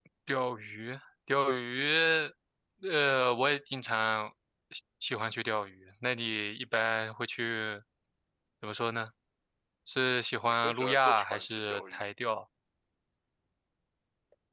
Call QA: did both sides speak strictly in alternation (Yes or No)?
No